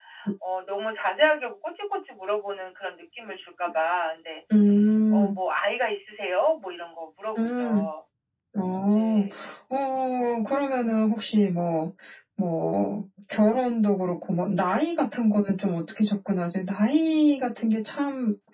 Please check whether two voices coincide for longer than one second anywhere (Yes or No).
No